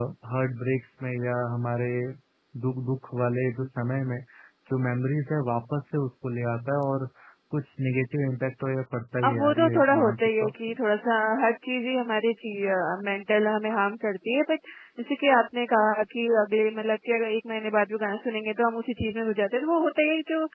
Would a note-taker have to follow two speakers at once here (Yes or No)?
Yes